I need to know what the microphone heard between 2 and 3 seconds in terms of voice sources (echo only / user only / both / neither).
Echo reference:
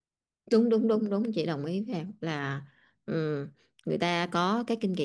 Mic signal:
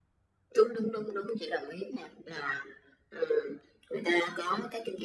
echo only